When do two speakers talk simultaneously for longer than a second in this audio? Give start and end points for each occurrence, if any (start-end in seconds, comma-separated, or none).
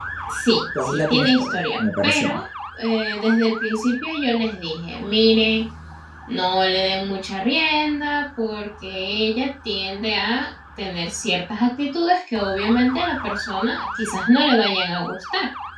0.8-2.4